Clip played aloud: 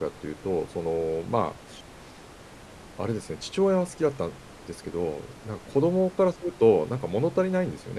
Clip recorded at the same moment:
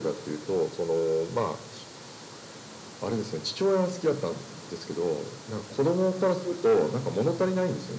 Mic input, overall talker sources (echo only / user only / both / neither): echo only